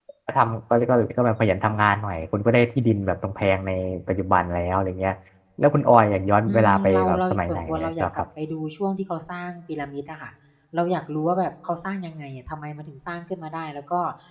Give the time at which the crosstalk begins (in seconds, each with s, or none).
6.5 s